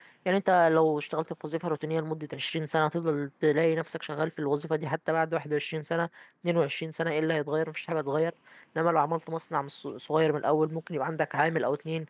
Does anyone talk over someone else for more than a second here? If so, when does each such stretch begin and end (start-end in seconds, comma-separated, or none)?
none